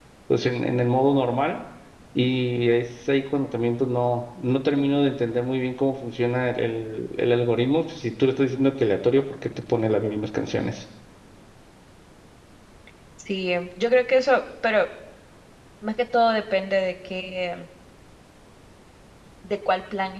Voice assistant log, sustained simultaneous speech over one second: none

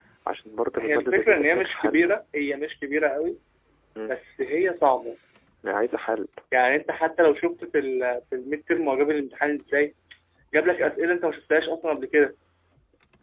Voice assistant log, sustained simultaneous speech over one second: present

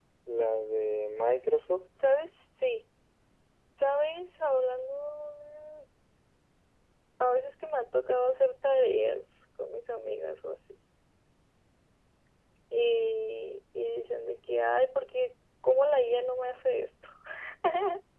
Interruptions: none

